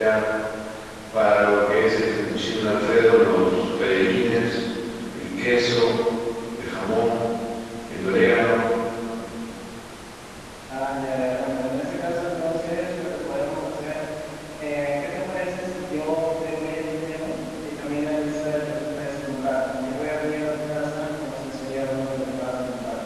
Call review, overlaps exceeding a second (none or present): none